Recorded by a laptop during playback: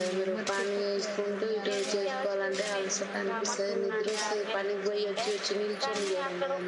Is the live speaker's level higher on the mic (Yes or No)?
No